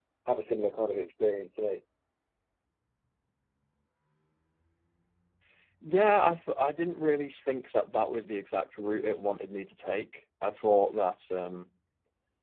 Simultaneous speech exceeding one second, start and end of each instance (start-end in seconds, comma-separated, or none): none